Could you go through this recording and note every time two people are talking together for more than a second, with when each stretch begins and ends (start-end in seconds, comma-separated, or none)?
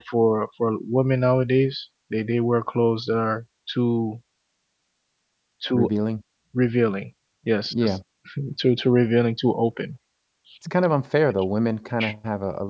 none